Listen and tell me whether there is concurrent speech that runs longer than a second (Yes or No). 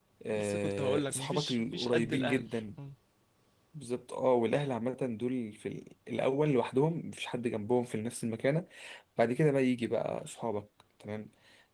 Yes